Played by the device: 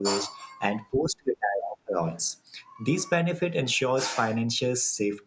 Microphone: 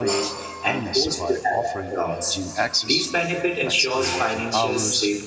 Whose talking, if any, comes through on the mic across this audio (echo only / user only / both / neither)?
both